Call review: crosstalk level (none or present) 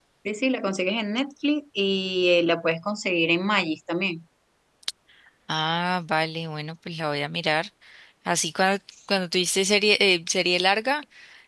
none